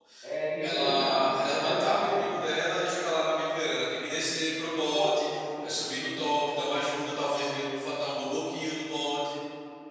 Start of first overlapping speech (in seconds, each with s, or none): 0.6 s